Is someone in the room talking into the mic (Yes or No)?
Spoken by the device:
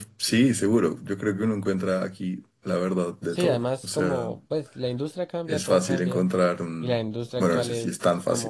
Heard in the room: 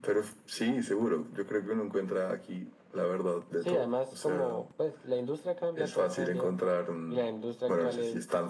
No